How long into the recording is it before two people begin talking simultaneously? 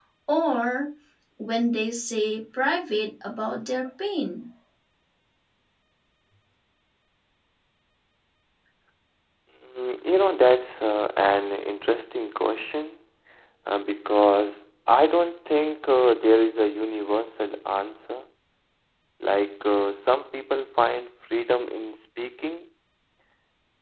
none

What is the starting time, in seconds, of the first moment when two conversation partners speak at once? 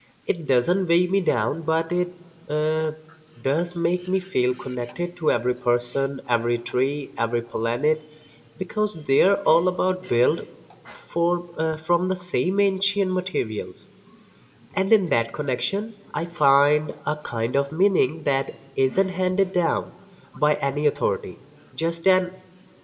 none

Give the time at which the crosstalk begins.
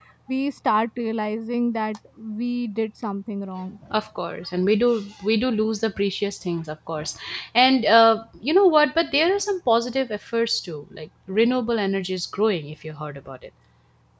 none

